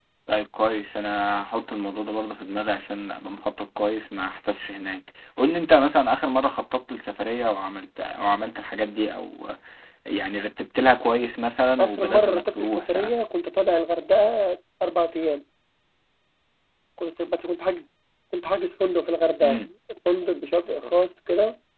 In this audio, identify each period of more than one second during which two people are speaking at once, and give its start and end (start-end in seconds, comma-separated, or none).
11.8-13.2